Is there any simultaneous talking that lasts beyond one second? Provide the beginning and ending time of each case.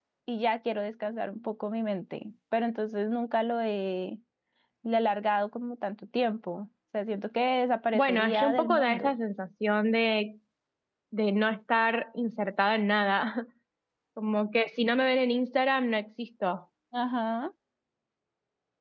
7.9-9.1

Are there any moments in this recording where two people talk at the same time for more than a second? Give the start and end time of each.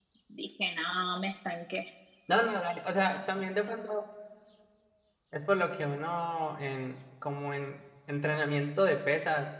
none

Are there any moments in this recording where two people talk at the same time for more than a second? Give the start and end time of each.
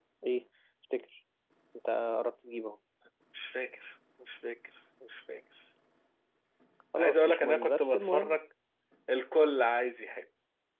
7.0-8.4

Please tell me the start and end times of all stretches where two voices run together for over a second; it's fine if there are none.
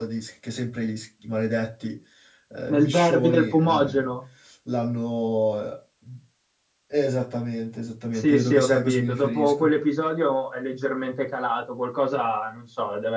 2.7-4.1, 8.1-9.7

